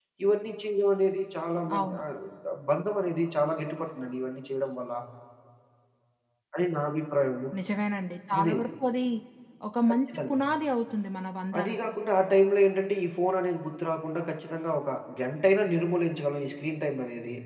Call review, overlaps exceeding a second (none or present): none